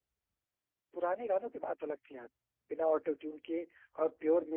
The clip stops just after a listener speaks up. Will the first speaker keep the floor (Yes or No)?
Yes